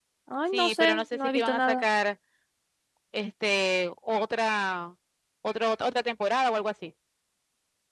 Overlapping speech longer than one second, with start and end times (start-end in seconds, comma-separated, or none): 0.5-1.8